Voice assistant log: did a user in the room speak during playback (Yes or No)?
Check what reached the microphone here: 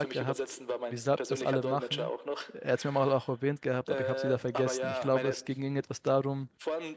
Yes